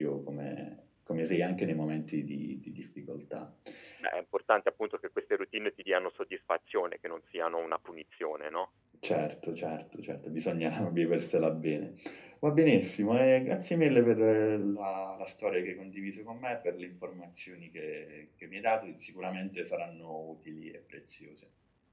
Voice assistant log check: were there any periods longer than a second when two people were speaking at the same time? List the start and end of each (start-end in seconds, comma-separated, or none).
none